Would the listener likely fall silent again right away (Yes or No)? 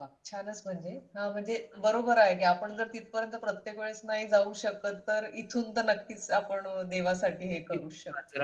No